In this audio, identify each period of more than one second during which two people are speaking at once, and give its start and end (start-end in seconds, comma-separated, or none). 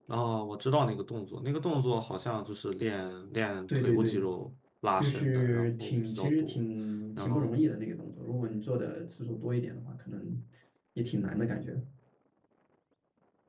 5.0-6.6